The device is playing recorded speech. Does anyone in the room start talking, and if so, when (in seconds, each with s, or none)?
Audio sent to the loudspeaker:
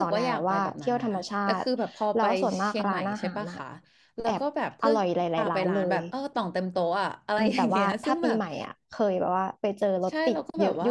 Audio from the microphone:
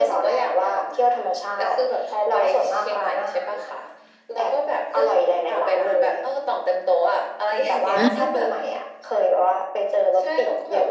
7.9 s